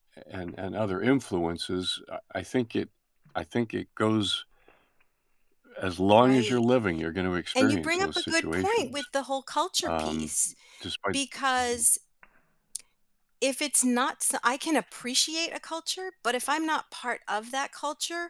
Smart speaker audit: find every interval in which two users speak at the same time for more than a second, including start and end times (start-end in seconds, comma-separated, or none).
7.6-9.1